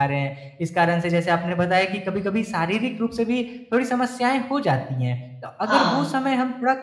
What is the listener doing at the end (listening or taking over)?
listening